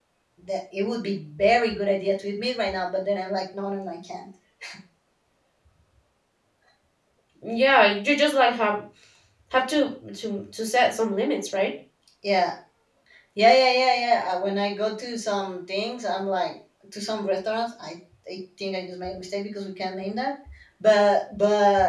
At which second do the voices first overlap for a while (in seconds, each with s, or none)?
none